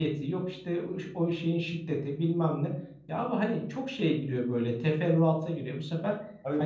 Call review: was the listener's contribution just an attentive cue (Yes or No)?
No